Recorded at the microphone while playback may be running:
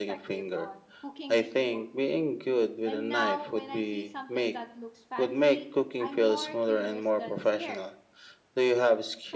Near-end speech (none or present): present